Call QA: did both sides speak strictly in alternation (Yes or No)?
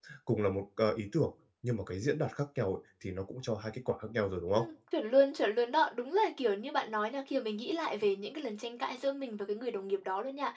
Yes